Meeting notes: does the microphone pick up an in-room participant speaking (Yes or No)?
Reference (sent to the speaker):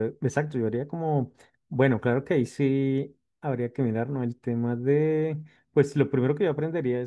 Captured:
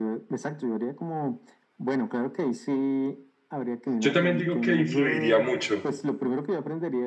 Yes